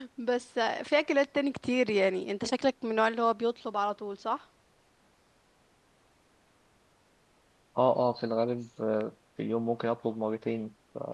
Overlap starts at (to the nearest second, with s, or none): none